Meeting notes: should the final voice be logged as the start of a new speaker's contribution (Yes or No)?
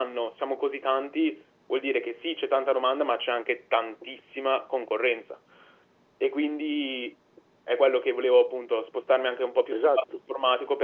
No